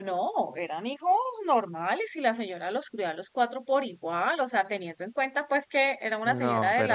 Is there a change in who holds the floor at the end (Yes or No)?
No